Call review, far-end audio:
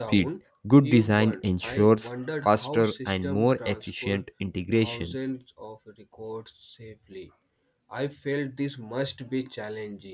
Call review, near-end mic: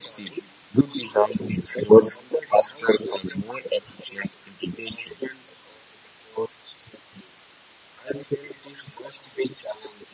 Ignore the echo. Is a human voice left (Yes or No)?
No